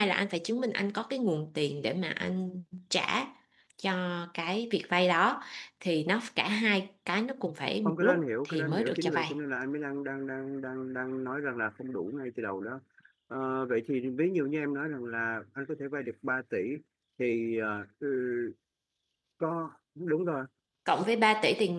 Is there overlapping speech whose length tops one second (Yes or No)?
Yes